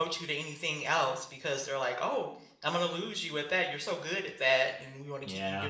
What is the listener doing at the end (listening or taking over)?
listening